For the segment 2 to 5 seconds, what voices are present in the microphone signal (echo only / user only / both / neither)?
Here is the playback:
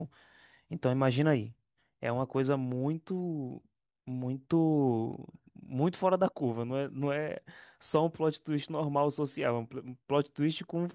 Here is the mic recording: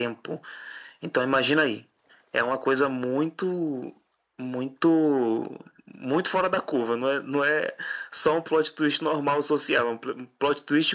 echo only